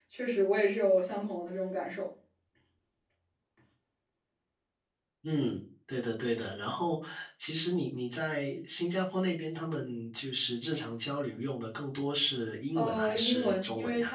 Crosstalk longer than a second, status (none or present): present